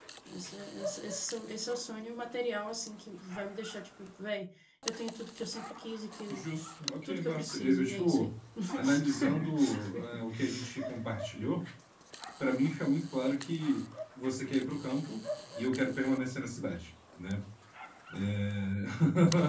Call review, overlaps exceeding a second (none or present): present